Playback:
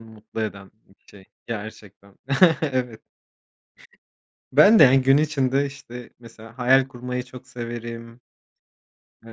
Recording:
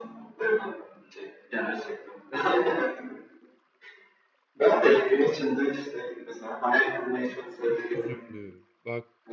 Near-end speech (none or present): present